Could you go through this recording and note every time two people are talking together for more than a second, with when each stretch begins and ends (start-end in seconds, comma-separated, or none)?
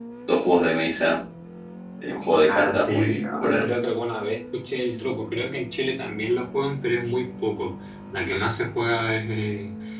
2.3-3.6